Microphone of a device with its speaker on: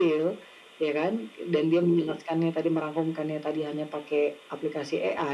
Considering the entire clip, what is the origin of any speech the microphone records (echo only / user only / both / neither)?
echo only